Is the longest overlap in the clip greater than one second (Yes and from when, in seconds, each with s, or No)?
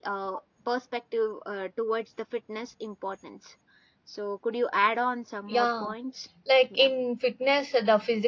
No